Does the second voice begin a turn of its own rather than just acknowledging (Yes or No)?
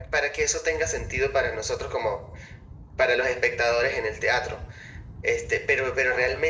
No